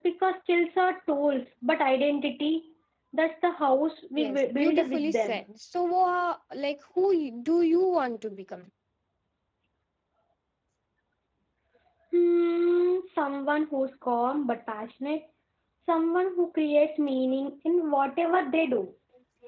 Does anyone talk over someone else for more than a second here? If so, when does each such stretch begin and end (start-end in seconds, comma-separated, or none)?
4.2-5.4